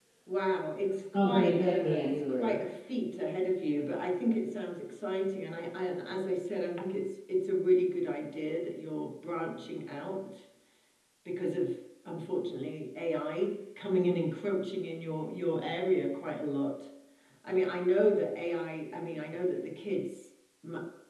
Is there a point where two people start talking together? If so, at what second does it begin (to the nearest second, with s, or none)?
1 s